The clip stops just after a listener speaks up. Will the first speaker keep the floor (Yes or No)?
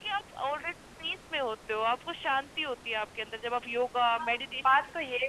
No